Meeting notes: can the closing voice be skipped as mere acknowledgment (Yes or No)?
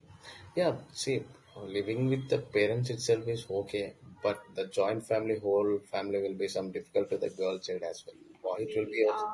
No